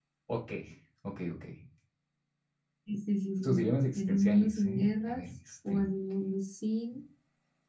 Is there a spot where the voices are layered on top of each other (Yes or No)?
Yes